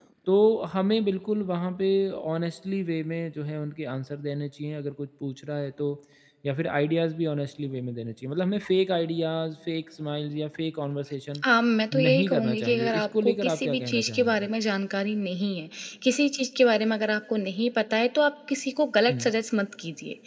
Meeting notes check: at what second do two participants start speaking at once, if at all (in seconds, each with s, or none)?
11.9 s